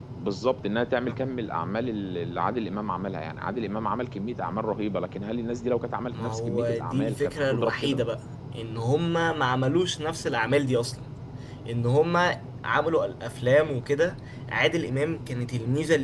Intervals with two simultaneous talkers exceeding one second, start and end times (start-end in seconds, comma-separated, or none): 6.1-8.0